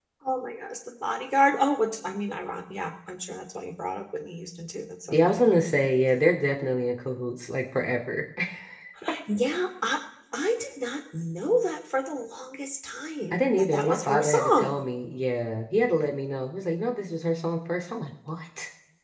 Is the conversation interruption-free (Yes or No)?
No